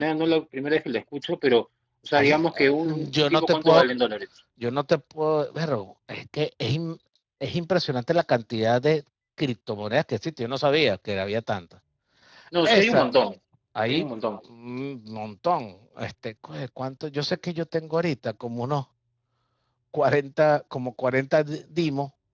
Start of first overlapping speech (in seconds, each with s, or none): 2.2 s